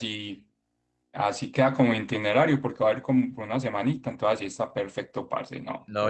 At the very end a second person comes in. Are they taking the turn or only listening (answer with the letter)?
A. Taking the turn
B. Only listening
A